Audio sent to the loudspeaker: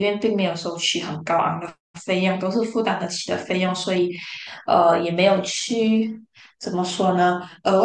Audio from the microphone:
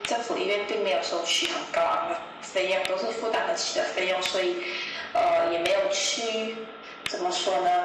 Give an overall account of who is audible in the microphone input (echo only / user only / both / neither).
echo only